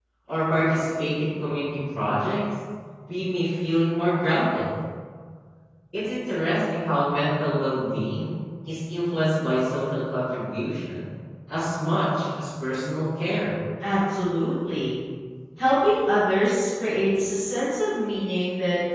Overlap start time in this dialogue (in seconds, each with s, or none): none